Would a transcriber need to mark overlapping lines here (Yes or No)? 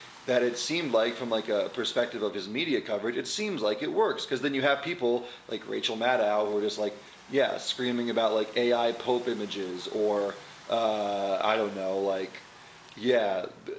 No